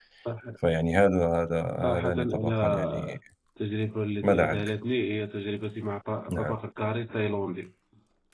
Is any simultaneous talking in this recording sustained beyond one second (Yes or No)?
Yes